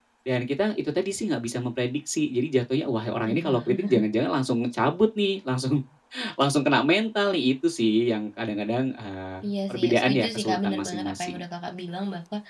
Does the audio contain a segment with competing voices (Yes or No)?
Yes